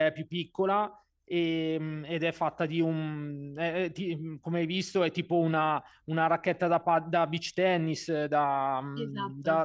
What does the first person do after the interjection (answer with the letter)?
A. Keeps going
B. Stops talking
A